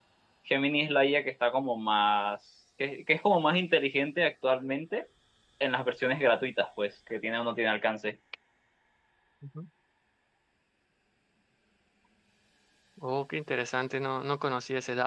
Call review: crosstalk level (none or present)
none